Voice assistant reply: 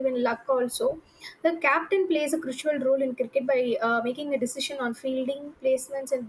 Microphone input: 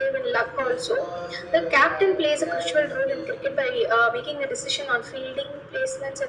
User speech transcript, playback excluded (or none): just because uh, uh, they are the inspiration